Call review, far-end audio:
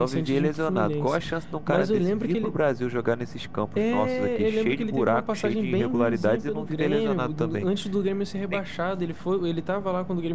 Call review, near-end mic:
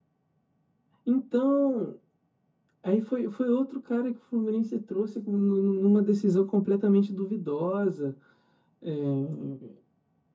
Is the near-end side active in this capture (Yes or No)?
Yes